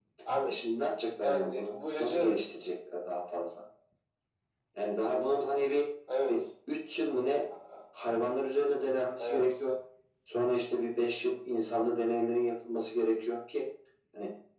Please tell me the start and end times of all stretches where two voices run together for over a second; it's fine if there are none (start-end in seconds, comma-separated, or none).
1.2-2.4